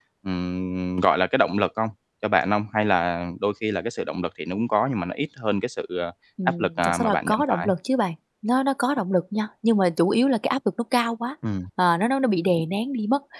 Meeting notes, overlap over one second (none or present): present